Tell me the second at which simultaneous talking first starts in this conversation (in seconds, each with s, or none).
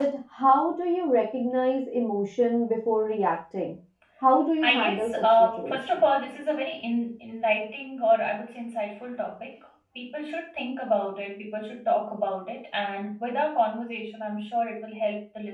4.6 s